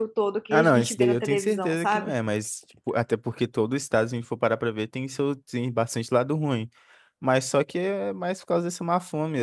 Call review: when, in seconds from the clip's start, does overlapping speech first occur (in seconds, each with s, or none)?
0.5 s